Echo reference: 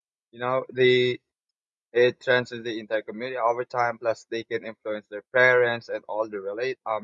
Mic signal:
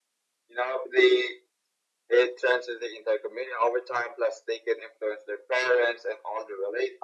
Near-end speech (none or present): none